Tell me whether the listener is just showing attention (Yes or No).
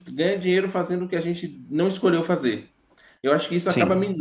Yes